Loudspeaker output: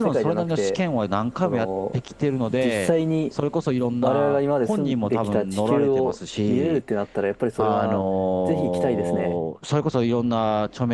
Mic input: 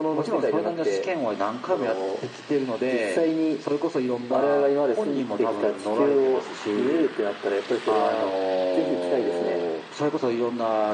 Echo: present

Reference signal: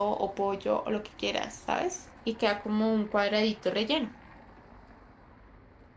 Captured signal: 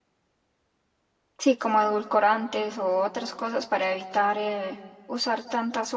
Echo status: none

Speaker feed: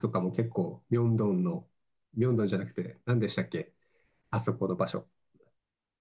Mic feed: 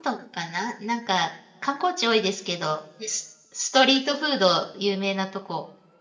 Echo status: none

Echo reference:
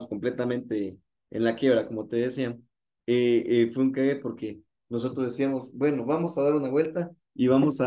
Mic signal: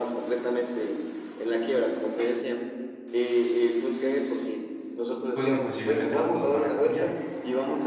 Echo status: present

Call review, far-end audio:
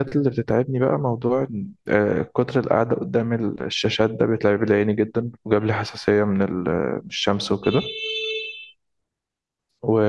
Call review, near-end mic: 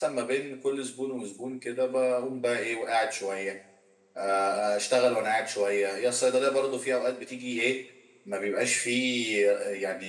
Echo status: none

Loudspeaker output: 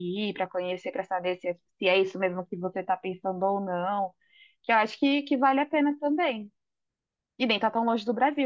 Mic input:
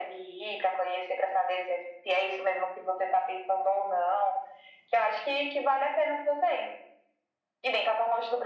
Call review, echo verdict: present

